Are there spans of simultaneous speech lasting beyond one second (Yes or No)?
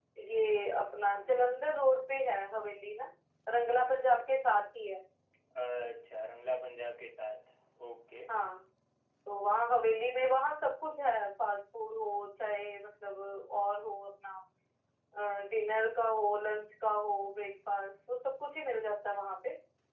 No